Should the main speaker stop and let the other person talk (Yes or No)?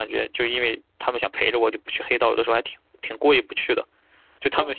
No